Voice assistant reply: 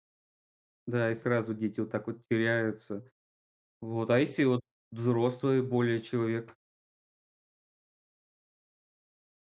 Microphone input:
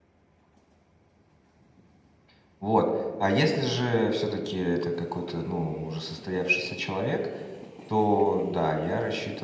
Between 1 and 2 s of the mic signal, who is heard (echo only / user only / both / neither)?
neither